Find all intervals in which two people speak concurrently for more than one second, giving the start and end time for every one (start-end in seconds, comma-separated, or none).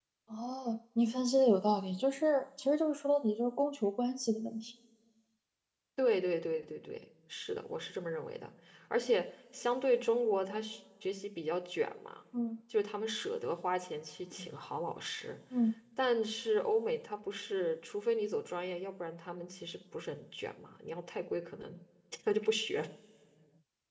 none